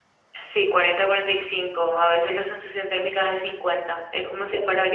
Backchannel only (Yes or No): Yes